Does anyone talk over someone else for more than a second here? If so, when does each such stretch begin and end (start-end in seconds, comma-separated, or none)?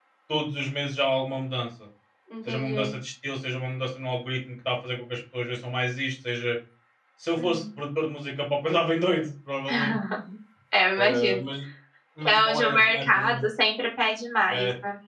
12.2-13.4